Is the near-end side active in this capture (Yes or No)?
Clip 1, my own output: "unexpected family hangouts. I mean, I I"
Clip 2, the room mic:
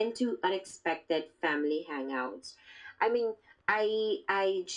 No